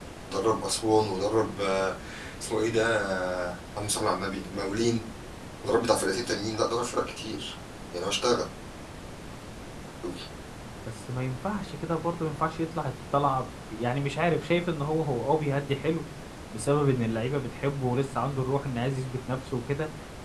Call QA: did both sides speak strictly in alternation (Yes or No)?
Yes